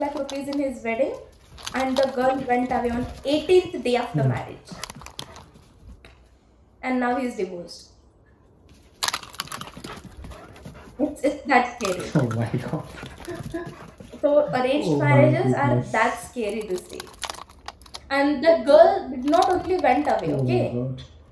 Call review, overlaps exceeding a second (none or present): present